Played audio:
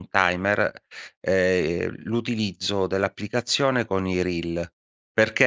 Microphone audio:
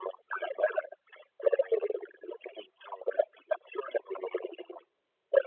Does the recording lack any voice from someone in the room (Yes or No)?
Yes